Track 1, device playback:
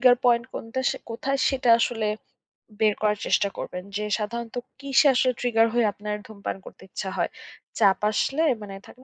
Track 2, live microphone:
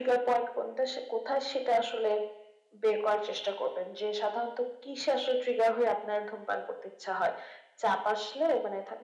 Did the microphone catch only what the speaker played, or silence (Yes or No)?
Yes